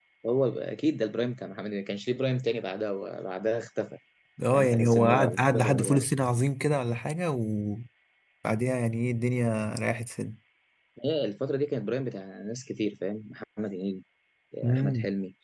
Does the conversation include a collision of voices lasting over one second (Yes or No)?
Yes